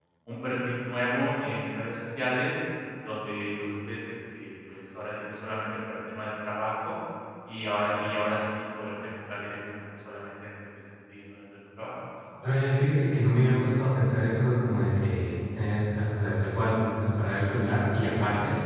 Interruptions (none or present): none